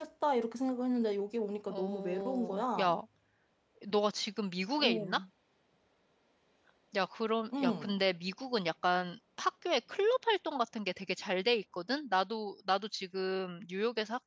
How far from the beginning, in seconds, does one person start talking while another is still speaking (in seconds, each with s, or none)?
1.7 s